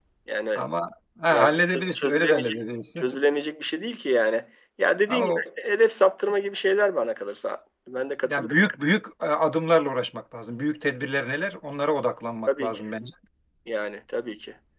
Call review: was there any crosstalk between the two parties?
Yes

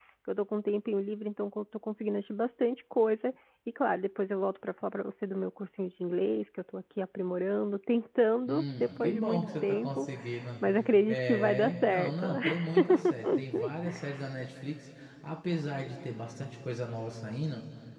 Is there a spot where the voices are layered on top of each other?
Yes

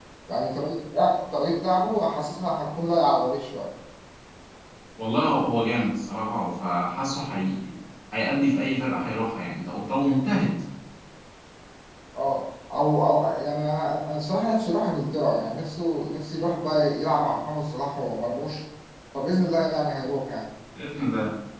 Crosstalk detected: No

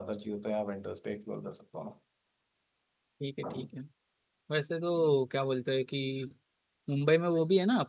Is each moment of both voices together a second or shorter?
Yes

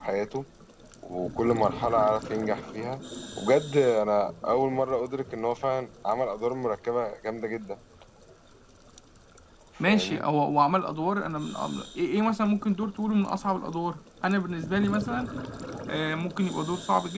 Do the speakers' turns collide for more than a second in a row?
No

